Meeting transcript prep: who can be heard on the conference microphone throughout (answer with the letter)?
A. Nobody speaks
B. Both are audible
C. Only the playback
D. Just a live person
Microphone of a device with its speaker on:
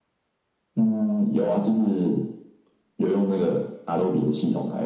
C